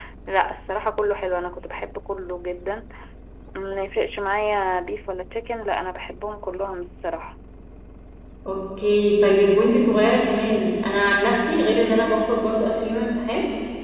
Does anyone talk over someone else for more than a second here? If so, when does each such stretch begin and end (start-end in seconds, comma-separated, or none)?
none